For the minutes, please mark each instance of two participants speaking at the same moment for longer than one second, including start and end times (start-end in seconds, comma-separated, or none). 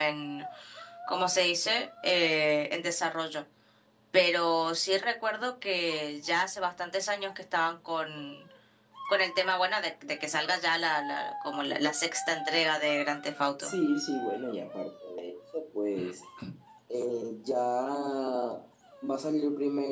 none